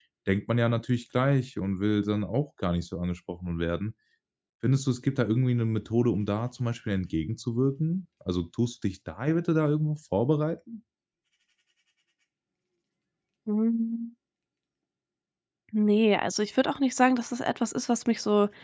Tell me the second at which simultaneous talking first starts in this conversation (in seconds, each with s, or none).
none